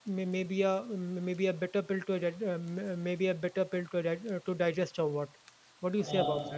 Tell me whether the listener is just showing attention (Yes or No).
No